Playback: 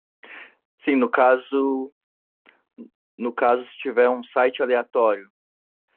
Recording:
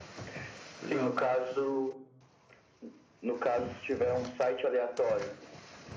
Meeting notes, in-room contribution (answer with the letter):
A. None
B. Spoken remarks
B